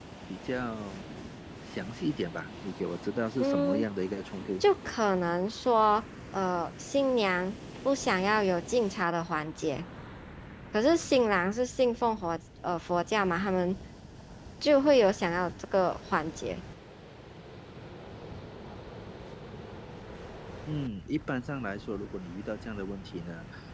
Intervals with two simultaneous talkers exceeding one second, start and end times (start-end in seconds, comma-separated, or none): none